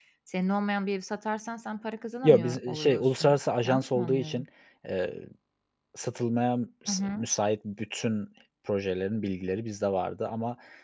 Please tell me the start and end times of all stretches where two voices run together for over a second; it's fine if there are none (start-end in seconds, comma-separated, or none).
2.2-4.5